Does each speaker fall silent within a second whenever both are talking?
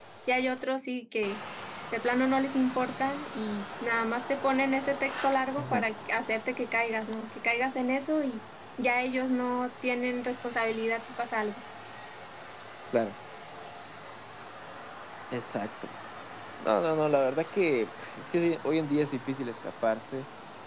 Yes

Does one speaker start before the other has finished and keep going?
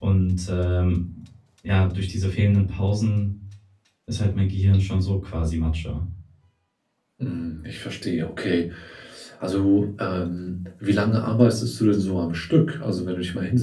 No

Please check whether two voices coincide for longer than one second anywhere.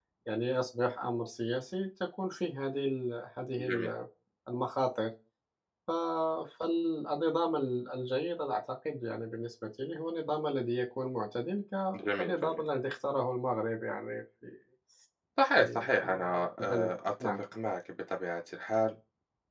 Yes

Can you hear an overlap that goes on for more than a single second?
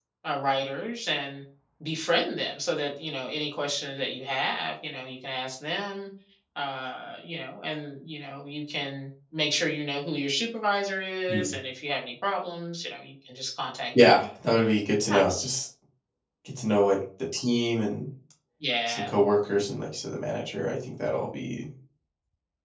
No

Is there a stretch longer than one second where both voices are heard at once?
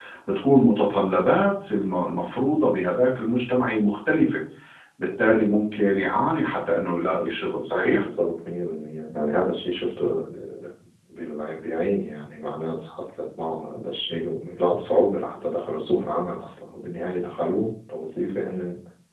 No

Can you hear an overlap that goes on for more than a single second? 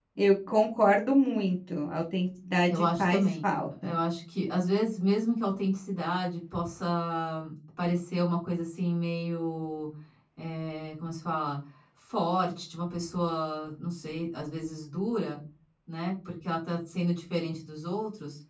Yes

